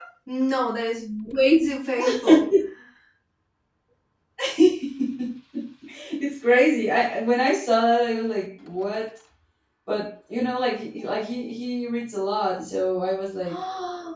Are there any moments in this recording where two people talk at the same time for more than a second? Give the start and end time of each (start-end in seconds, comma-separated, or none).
none